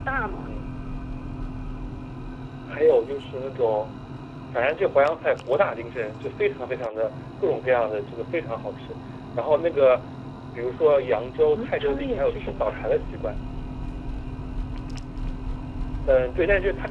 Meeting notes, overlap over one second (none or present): present